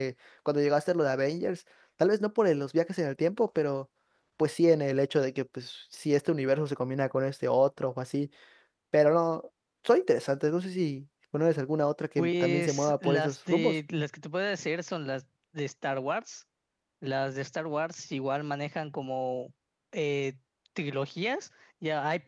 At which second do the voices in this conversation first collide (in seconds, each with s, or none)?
12.2 s